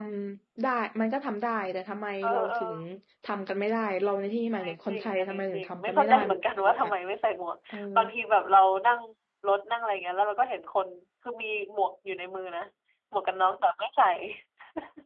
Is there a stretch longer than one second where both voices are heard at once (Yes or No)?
Yes